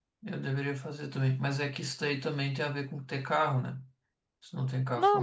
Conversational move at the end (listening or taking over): taking over